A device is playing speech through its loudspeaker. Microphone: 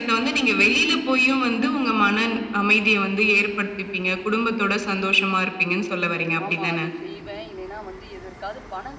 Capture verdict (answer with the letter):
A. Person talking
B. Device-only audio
A